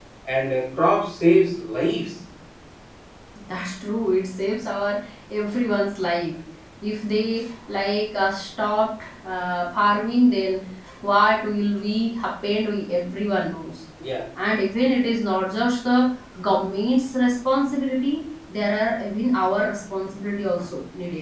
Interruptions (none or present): none